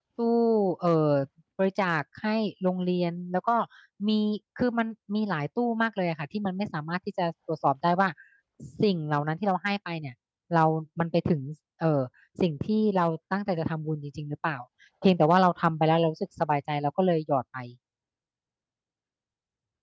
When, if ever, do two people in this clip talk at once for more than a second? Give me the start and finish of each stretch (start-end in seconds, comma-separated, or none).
none